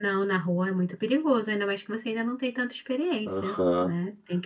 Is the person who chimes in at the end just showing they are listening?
No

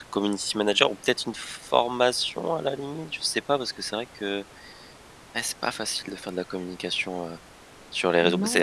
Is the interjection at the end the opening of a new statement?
Yes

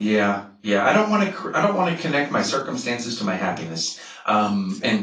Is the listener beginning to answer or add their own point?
No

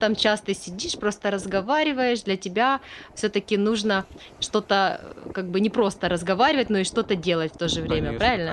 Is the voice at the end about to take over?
Yes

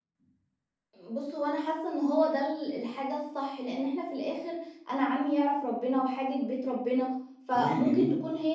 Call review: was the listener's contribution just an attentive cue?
Yes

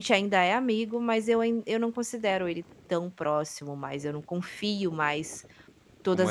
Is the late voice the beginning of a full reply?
No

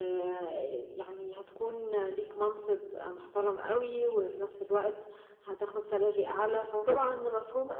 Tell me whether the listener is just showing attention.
Yes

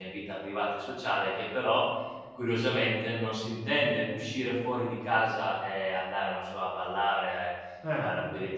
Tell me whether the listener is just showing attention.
Yes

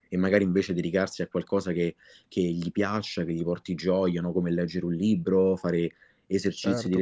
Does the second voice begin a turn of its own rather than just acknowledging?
No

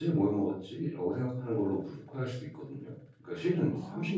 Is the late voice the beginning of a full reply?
No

